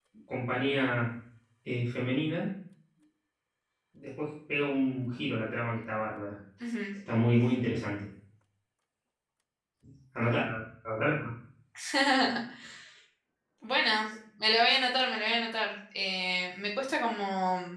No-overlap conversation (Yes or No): Yes